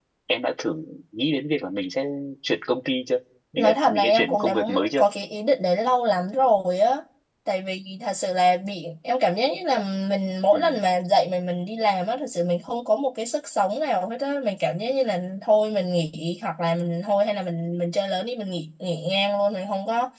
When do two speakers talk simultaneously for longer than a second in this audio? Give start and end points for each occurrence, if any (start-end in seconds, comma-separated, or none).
3.6-5.0